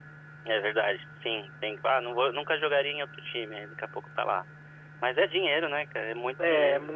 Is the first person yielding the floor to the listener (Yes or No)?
Yes